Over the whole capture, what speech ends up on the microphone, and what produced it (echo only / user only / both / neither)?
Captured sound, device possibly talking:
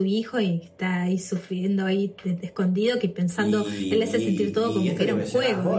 both